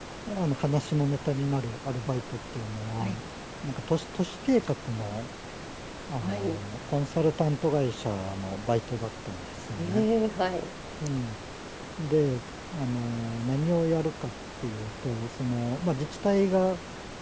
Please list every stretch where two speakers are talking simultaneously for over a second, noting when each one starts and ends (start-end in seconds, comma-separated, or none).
none